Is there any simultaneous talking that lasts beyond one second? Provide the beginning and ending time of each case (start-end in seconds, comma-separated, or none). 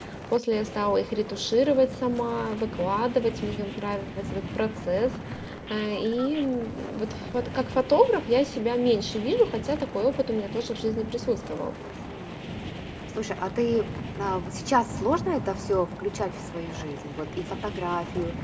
none